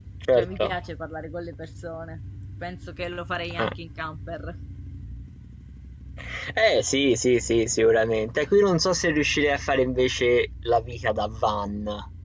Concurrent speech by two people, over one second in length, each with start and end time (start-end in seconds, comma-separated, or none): none